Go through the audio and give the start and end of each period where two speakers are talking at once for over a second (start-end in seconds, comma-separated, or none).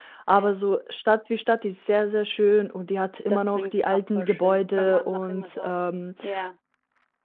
3.3-5.7